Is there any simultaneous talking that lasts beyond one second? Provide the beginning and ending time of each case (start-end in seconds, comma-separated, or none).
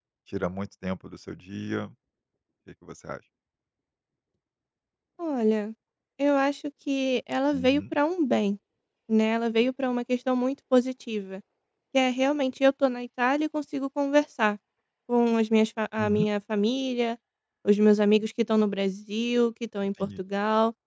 none